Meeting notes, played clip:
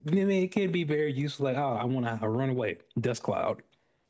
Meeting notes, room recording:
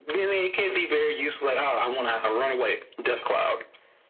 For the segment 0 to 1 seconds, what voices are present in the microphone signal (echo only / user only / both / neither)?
echo only